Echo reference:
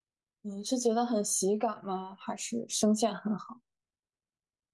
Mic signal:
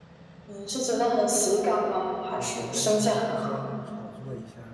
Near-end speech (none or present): present